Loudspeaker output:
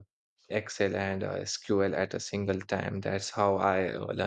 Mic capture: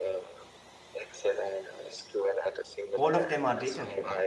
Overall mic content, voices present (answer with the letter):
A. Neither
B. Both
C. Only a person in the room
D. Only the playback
B